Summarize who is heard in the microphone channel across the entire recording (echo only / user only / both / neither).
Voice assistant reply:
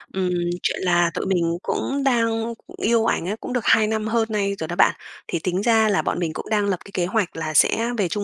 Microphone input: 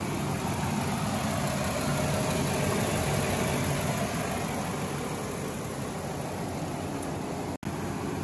neither